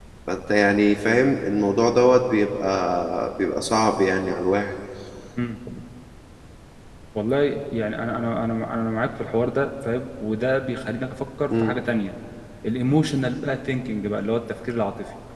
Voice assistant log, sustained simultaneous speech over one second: none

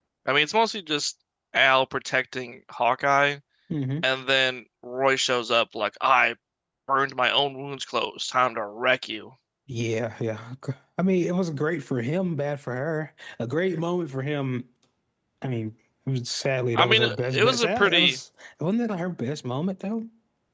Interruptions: present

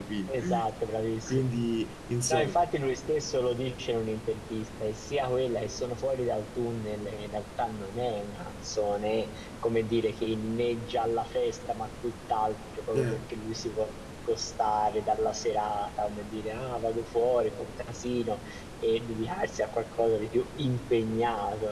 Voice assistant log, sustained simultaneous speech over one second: none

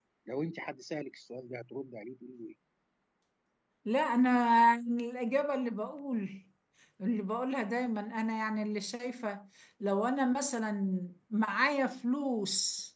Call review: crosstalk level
none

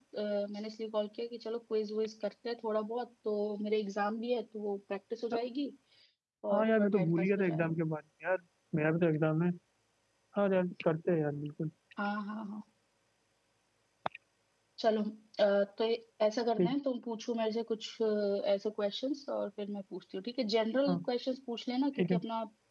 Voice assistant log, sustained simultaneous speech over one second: present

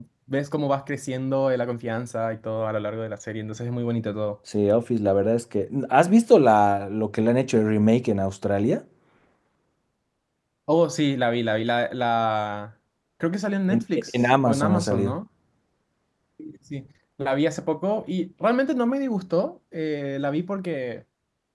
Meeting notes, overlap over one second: present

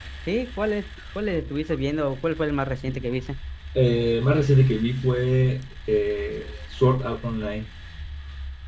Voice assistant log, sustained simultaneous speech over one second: none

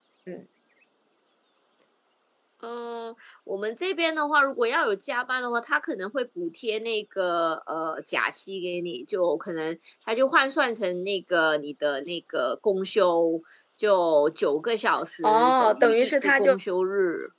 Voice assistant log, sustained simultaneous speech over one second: present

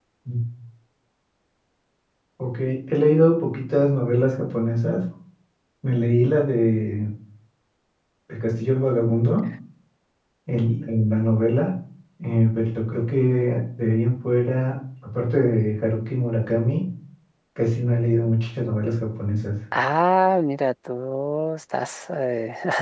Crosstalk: none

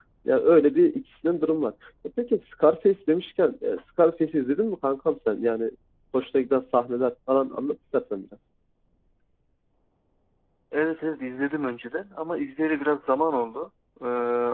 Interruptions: none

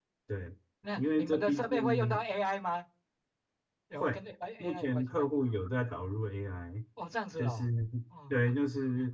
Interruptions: present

